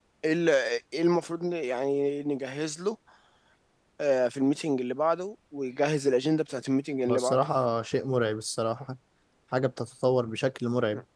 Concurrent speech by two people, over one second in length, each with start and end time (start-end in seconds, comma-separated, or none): none